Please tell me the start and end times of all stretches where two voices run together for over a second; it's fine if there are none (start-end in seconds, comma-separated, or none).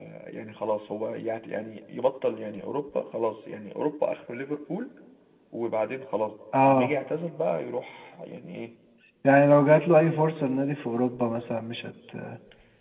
none